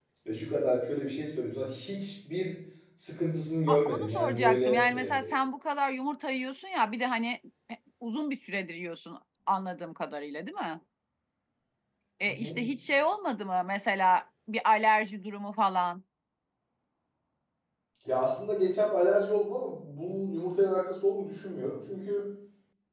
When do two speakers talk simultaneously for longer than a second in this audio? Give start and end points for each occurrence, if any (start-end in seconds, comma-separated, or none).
3.7-5.1